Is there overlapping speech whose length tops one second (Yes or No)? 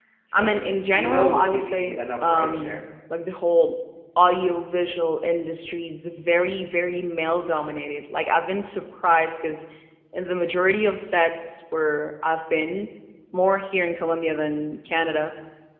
Yes